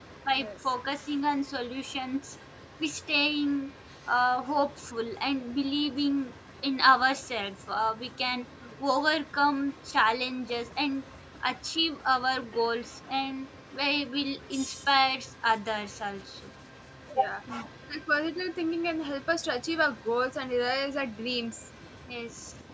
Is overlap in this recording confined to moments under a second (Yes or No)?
Yes